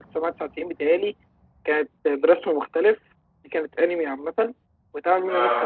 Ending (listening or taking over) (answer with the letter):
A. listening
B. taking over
A